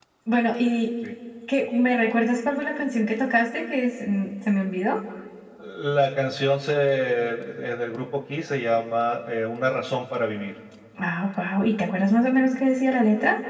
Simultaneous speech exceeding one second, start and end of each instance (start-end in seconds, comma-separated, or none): none